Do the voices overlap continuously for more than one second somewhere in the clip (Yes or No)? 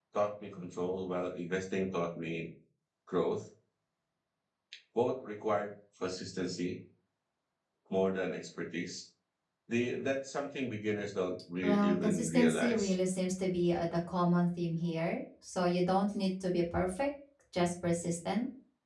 Yes